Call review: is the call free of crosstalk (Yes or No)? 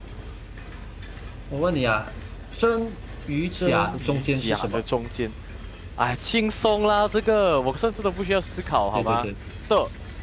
No